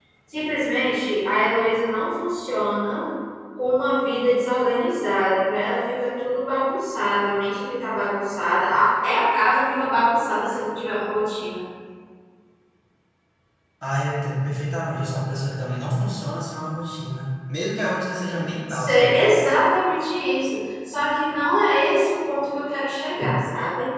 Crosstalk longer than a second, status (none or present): none